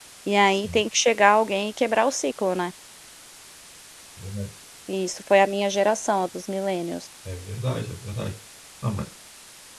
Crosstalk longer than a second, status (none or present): none